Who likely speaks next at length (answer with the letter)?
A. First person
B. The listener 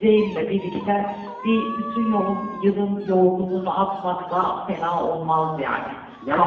B